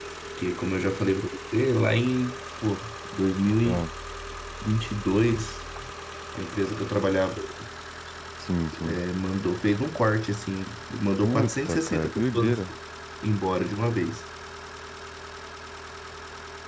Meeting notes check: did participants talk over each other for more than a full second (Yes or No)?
Yes